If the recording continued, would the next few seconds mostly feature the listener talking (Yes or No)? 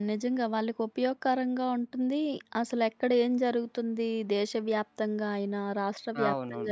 No